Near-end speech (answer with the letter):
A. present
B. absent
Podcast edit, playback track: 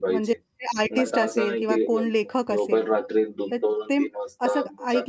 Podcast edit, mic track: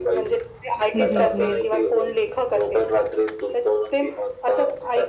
A